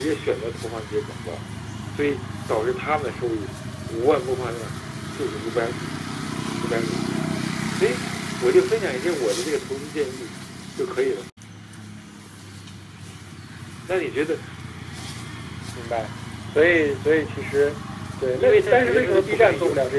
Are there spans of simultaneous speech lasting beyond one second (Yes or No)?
Yes